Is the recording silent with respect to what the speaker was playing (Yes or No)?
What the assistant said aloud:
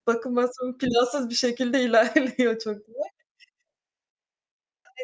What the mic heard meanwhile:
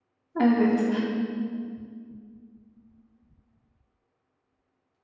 Yes